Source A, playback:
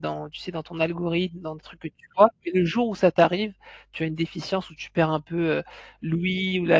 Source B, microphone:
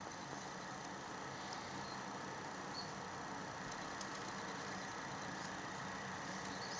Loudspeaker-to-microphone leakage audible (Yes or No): No